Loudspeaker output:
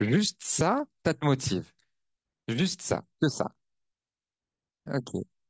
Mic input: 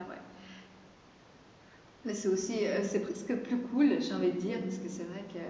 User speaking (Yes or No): Yes